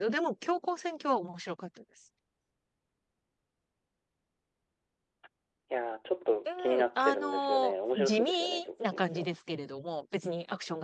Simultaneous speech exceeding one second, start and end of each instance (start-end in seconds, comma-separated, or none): 6.5-9.3